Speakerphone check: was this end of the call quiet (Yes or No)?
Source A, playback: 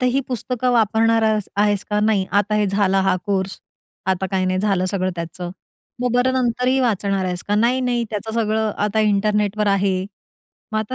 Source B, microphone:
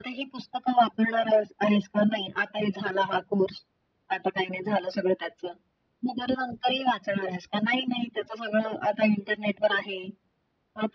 Yes